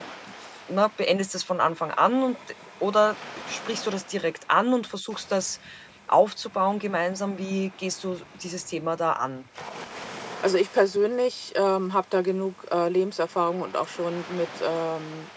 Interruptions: none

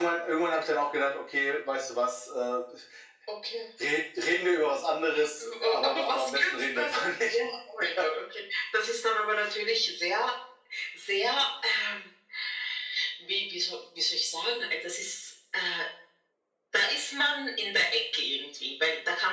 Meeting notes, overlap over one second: present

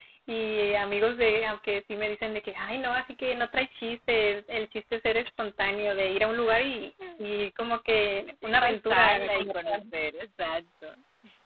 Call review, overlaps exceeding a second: present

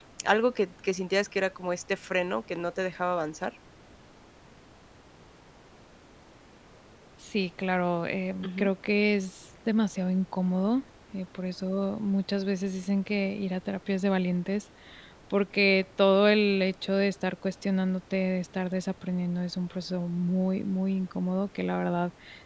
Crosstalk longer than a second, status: none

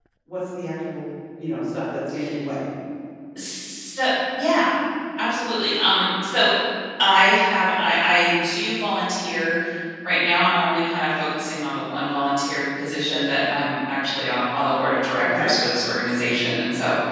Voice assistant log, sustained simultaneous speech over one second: none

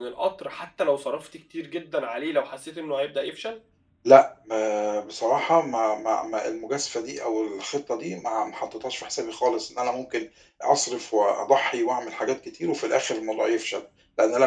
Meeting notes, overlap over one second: none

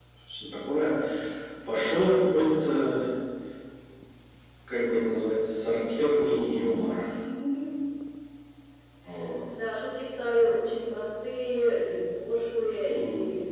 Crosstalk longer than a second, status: none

